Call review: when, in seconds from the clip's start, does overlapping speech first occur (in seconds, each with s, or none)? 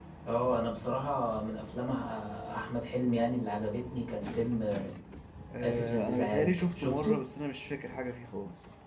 5.6 s